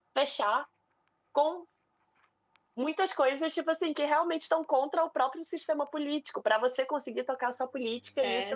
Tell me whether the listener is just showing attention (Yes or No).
No